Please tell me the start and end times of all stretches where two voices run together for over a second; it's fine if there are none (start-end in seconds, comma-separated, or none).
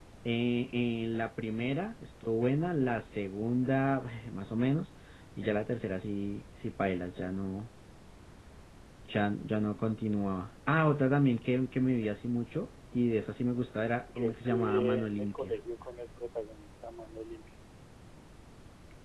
14.2-15.6